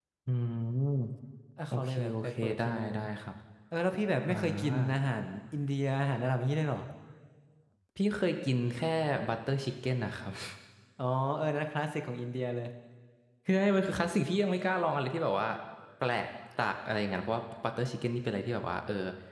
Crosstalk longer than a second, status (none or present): present